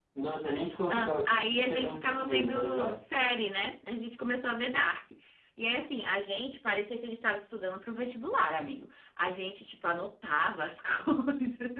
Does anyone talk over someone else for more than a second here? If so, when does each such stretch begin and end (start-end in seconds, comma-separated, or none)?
0.9-3.0